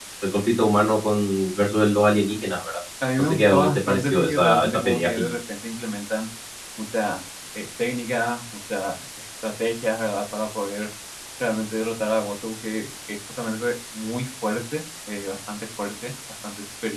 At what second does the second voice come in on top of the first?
3.2 s

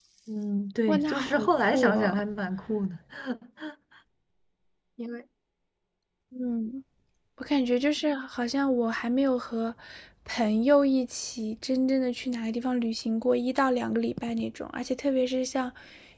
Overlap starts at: 0.9 s

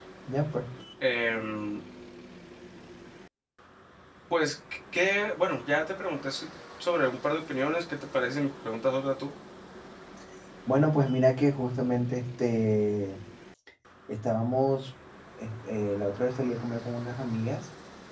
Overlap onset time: none

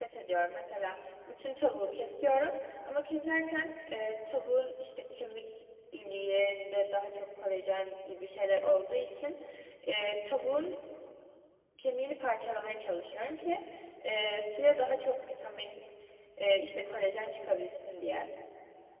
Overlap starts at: none

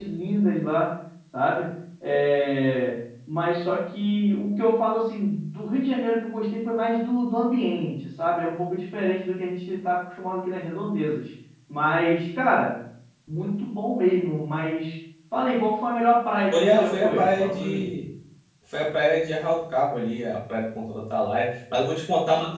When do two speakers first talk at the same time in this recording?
16.5 s

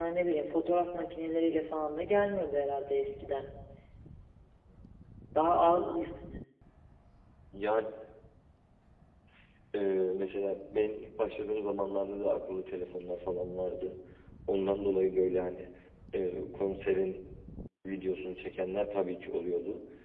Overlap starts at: none

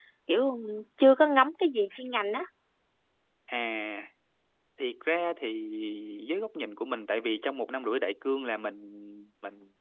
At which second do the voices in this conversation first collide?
none

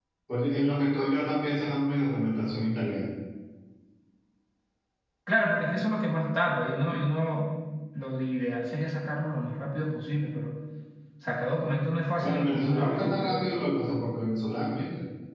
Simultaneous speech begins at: 12.2 s

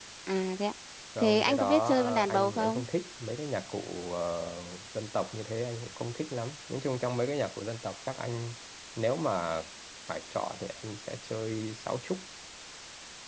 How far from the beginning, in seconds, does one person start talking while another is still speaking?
1.2 s

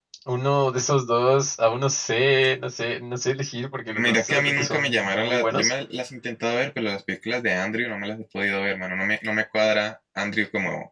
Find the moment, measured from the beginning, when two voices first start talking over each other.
3.9 s

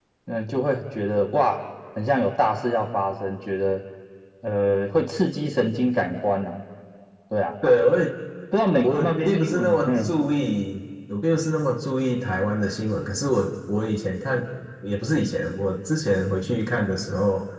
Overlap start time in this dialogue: 8.8 s

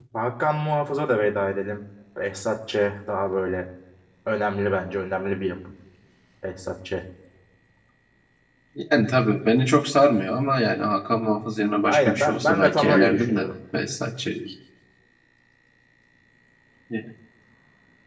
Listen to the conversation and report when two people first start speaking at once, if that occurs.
11.9 s

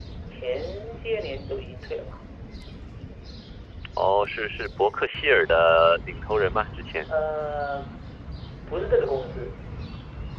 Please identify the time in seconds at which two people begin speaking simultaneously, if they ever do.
none

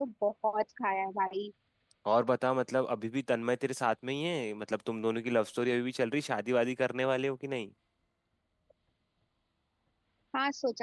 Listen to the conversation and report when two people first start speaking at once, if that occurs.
none

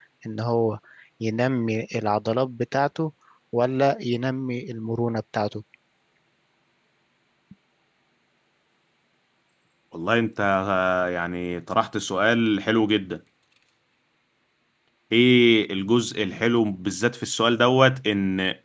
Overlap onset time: none

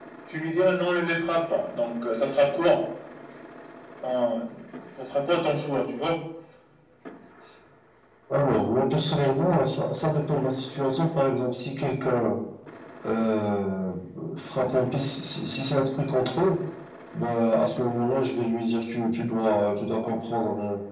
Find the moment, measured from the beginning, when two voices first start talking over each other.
none

